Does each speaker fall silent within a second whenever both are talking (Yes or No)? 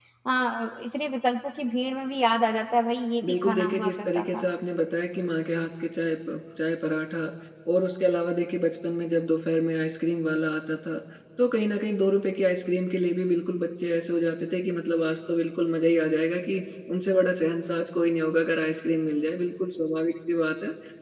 No